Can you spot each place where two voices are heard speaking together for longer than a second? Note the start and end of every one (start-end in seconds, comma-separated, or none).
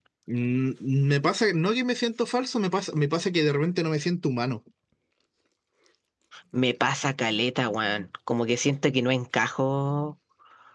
none